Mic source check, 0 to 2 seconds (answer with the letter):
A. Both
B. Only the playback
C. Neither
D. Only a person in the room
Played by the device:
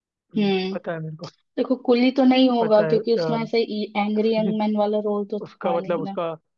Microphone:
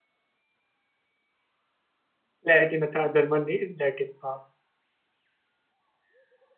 C